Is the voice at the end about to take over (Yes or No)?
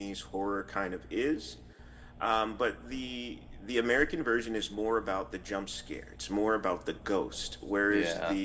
No